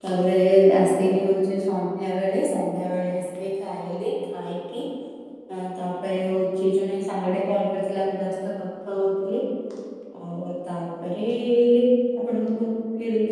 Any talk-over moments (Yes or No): No